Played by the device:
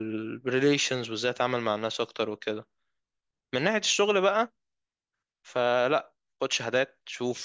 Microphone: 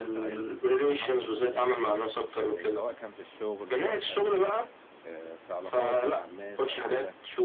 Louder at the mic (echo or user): echo